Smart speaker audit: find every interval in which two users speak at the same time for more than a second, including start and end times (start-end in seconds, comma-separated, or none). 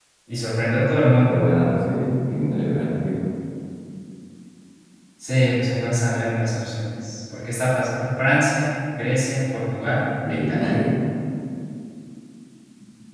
none